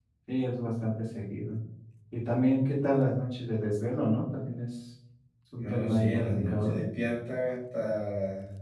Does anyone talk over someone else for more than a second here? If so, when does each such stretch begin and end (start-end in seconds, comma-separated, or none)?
5.6-6.8